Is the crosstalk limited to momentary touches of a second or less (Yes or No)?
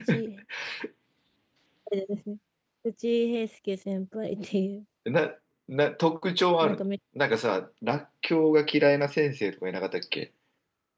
Yes